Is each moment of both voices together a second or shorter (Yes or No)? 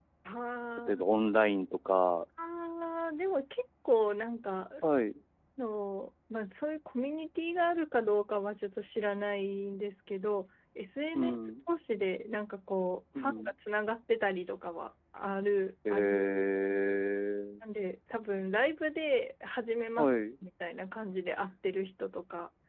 Yes